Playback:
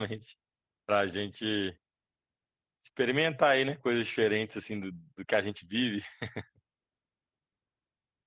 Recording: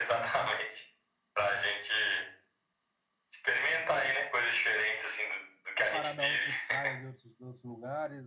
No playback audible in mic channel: No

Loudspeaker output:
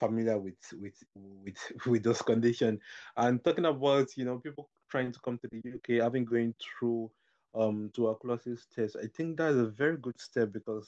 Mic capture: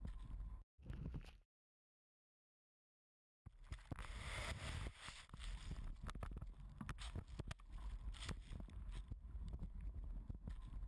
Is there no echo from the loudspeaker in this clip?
Yes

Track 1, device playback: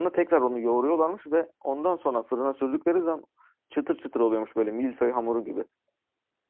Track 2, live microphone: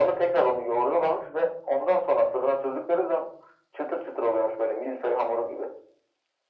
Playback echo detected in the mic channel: Yes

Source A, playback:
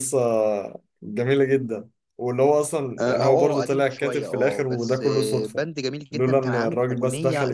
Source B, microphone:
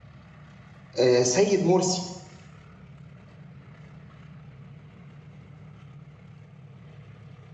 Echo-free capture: Yes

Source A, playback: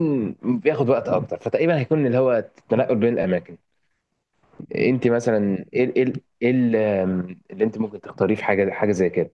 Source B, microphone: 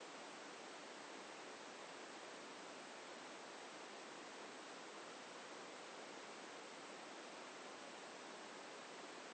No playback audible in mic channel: Yes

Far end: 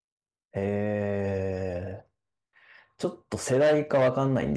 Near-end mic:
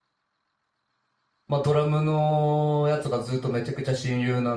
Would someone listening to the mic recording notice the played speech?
No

